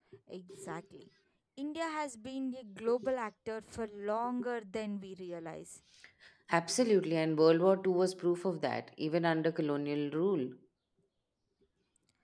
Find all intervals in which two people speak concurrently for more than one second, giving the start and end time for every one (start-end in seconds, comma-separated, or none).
none